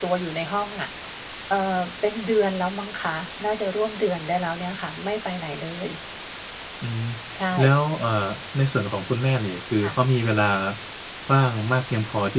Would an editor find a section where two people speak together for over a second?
No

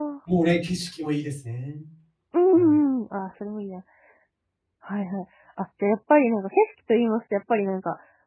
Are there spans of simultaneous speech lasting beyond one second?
No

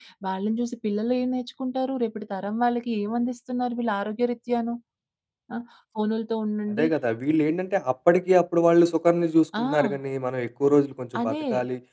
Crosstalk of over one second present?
No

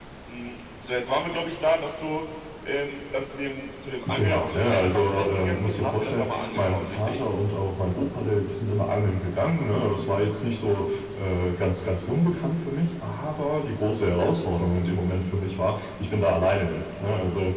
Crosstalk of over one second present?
Yes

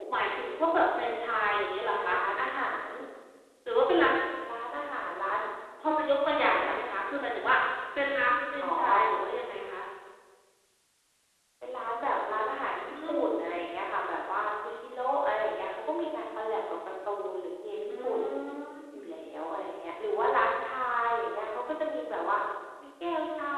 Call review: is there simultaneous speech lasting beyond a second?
No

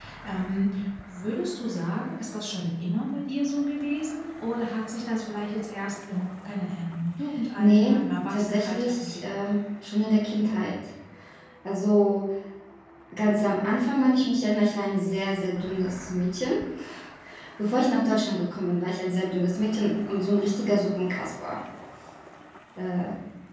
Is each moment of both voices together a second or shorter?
No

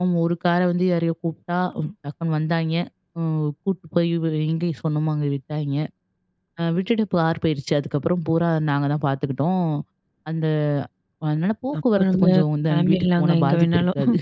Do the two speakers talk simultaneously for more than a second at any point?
Yes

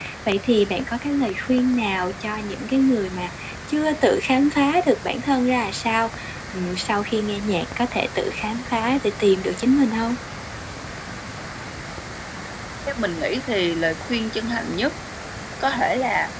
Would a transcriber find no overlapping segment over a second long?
Yes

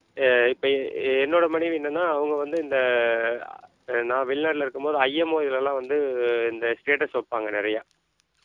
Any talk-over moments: No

